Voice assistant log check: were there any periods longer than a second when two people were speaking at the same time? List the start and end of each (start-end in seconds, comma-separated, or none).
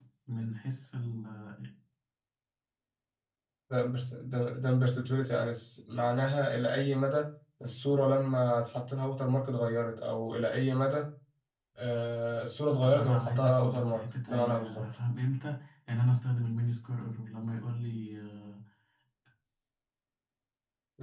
12.8-14.8